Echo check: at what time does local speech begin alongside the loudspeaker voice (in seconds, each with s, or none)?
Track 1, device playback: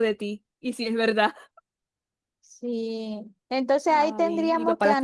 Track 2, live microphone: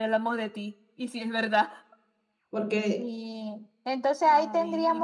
2.5 s